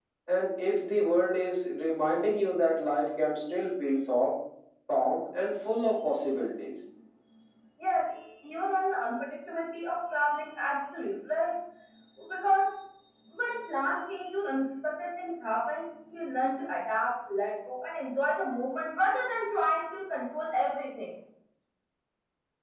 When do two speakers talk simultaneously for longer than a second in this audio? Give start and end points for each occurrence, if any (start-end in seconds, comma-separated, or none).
none